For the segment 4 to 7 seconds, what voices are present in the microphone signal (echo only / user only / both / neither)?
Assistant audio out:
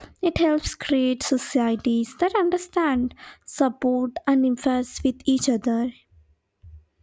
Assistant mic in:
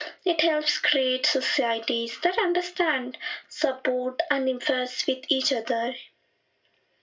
echo only